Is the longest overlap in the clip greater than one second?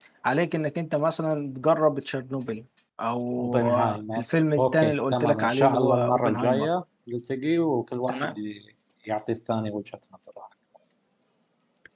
Yes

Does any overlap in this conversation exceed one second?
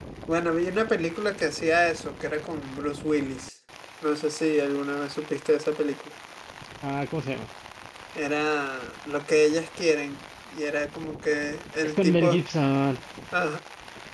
No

